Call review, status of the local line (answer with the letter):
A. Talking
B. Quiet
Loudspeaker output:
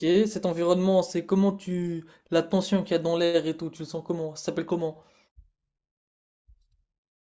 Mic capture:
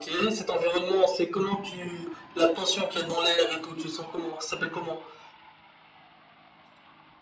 B